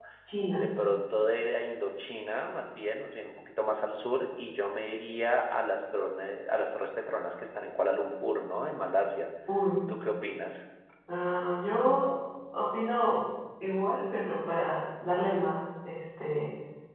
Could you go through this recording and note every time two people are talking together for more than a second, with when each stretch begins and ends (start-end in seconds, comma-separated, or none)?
none